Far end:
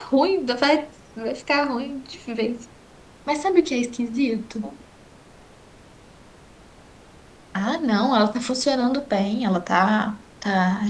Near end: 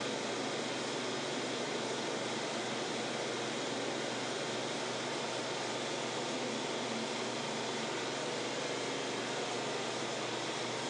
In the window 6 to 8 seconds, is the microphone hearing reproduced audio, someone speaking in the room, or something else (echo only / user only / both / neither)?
neither